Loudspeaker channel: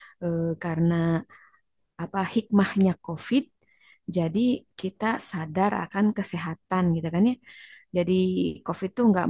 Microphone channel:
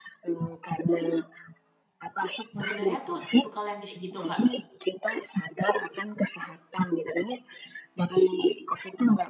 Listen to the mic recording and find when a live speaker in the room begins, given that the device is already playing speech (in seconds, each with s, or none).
2.6 s